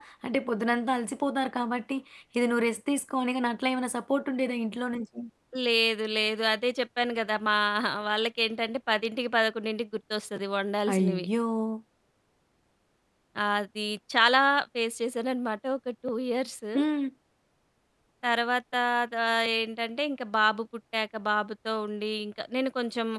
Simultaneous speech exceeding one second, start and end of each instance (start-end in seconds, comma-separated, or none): none